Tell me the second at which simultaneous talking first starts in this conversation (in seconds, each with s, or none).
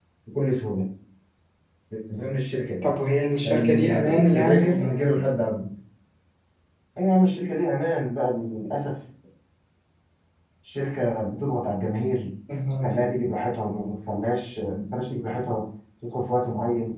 3.4 s